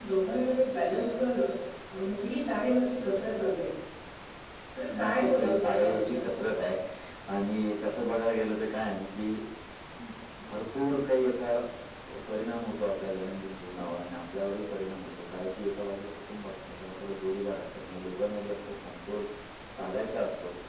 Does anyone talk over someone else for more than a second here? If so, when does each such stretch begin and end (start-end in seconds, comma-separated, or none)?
5.0-6.3